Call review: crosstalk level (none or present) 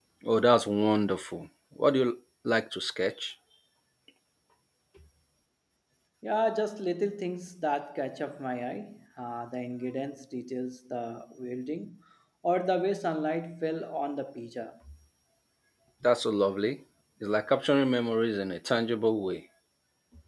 none